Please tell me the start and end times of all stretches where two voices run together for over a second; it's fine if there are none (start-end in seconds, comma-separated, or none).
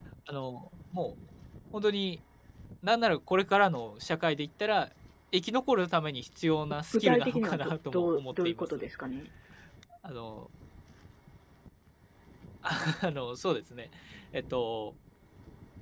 6.9-8.7